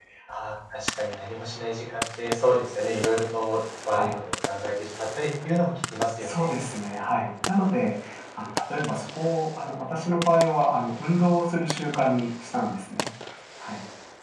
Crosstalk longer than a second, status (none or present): none